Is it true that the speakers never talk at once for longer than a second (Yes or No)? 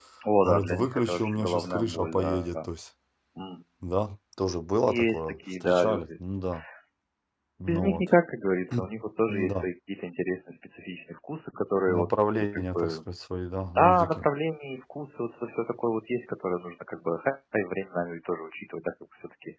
No